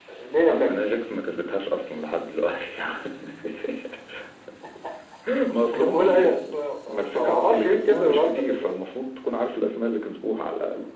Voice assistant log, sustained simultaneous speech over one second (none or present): present